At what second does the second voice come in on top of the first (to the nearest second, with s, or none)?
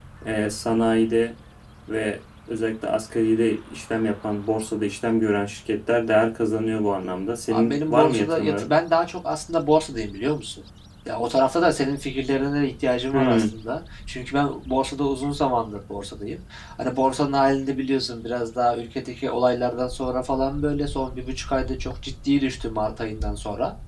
7 s